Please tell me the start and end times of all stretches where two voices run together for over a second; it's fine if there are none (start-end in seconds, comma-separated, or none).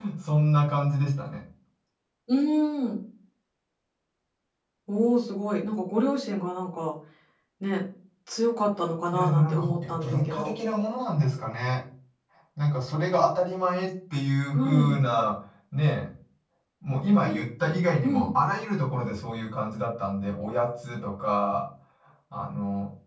9.1-10.5